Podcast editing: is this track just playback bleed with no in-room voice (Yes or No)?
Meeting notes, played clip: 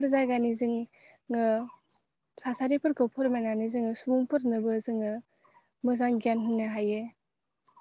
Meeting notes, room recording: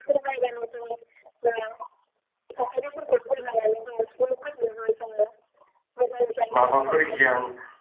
No